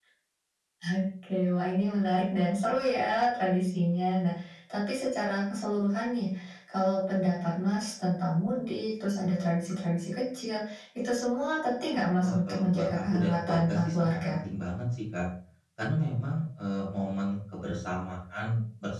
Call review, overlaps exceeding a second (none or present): present